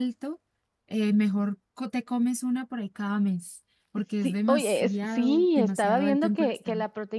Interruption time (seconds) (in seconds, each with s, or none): 4.2 s